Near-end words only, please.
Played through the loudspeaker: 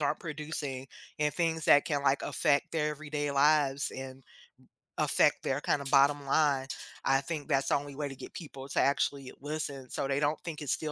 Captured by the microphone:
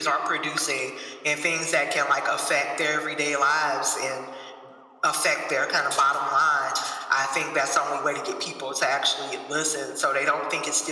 none

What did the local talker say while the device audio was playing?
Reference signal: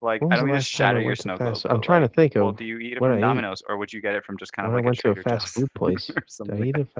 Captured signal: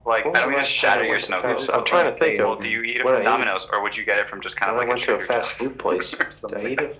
See, this is how you stay in tune.

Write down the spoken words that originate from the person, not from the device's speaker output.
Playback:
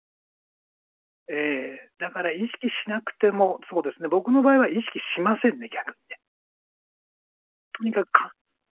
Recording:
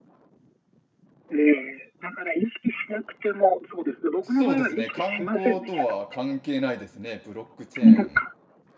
そうですね。観光とは関係ないですね。ブロックチェーン。

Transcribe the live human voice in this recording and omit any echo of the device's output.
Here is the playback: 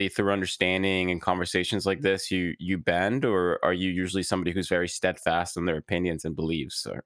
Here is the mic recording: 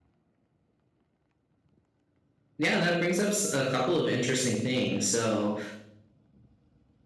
Yeah, that brings up s- a couple of interesting things. So,

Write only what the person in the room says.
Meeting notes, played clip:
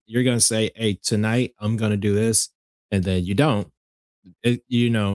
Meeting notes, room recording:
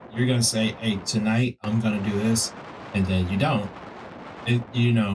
none

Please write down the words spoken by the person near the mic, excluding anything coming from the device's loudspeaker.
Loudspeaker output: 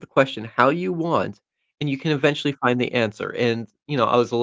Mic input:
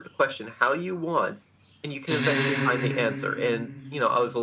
hmm

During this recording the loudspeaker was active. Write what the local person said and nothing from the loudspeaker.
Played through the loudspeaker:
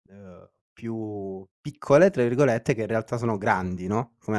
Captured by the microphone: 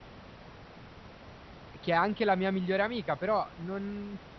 che è anche la mia migliore amica, però non

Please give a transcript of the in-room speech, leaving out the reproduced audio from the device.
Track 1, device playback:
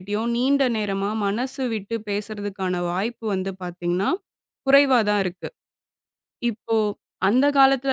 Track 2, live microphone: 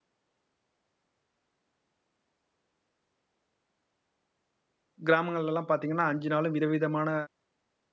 கிராமங்கள்லலாம் பார்த்தீங்கன்னா, 5 நாளும் விதவிதமான

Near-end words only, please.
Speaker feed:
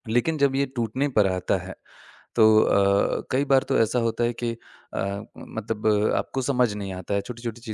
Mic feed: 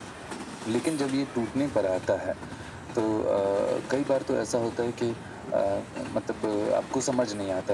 none

